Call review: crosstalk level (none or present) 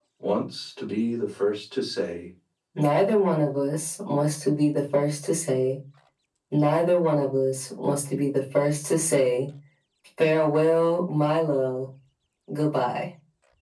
none